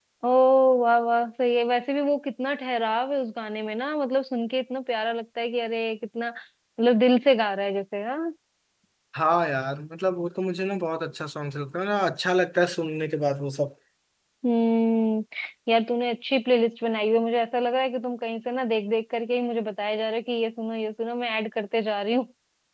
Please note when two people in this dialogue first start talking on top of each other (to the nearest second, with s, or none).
none